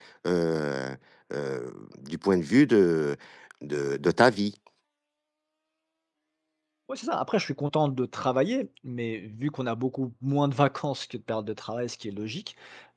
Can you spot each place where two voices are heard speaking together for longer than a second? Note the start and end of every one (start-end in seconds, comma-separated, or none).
none